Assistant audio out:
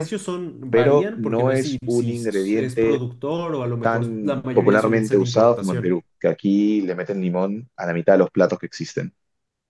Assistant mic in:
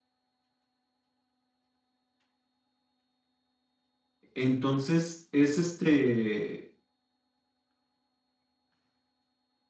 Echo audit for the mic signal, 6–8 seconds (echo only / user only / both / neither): user only